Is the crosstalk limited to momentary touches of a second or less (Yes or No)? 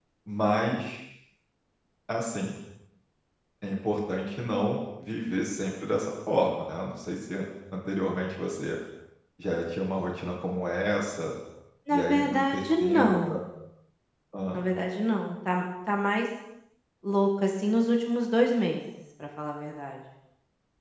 No